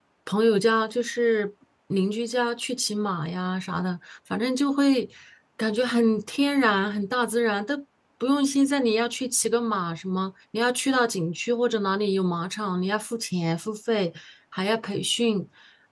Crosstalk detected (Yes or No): No